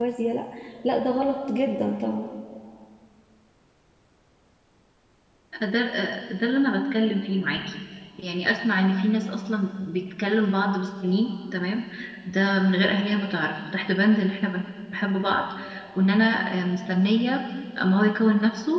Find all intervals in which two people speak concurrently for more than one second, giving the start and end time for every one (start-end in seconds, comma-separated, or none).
none